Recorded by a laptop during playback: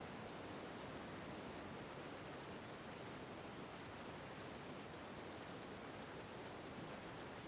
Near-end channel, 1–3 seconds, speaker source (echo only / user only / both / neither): neither